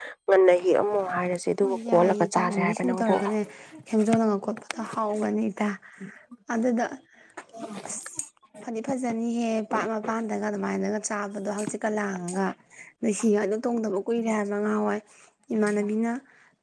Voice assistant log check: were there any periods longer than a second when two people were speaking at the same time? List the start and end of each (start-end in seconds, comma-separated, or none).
1.6-3.1